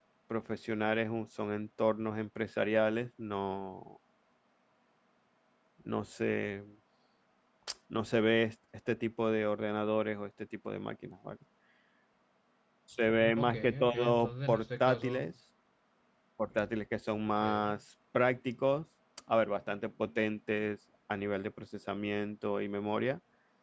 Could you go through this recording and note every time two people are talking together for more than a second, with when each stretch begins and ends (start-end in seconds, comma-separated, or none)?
13.4-15.3